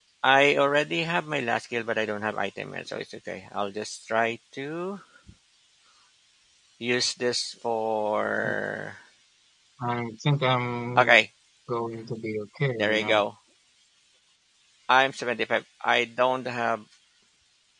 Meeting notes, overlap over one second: none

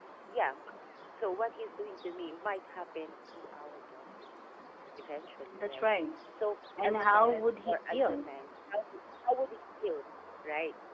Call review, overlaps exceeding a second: present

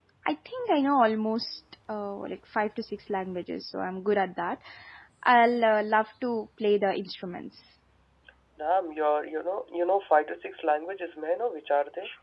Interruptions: none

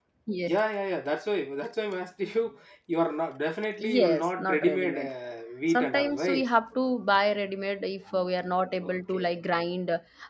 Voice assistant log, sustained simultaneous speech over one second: present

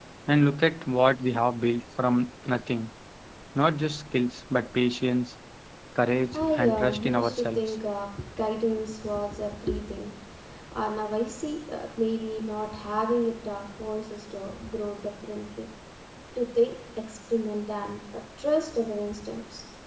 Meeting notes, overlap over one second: present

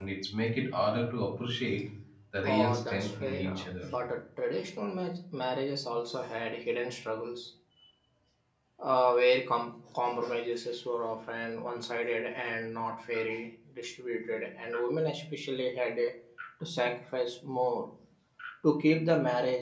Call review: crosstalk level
present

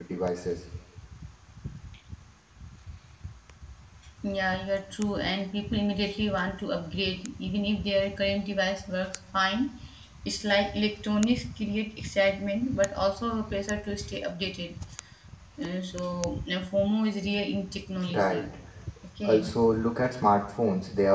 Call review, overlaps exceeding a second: none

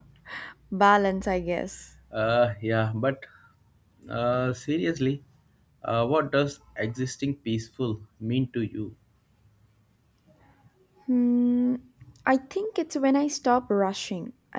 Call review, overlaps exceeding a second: none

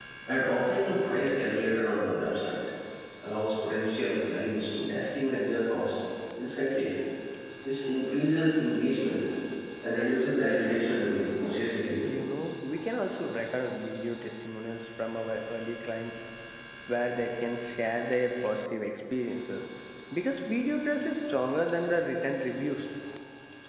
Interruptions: none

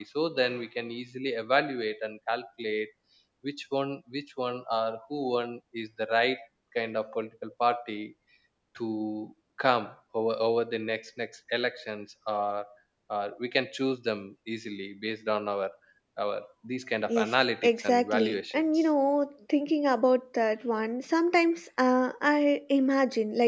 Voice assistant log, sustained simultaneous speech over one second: present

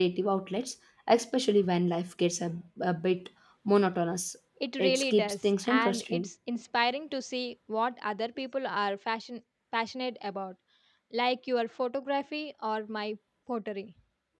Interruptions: present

